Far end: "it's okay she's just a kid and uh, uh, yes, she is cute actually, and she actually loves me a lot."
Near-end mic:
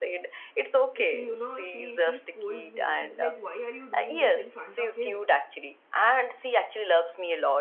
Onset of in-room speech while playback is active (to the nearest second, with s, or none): 1 s